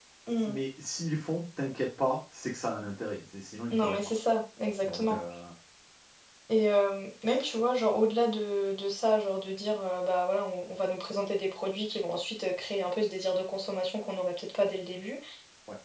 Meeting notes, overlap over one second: none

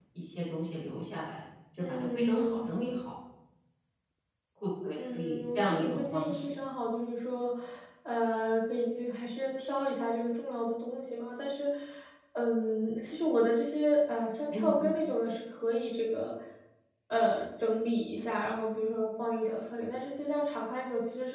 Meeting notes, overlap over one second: present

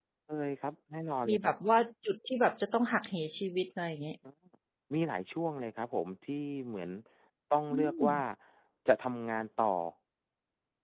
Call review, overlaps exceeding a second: none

